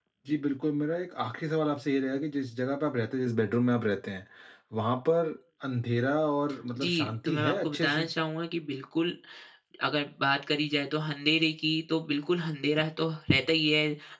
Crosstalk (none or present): present